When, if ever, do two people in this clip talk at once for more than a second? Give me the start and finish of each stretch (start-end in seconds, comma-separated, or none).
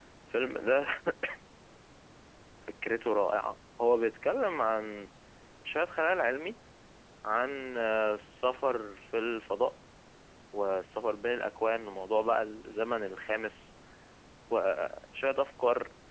none